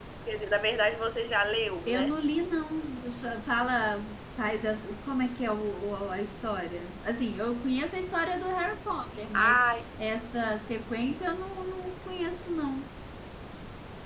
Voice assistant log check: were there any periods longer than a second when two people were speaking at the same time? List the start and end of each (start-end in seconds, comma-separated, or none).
none